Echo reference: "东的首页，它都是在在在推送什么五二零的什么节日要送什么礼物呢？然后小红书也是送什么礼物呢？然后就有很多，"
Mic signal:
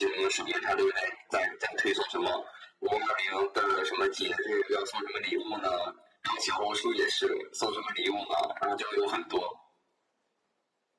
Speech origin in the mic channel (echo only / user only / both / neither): echo only